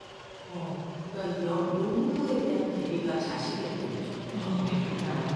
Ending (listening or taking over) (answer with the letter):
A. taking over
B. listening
A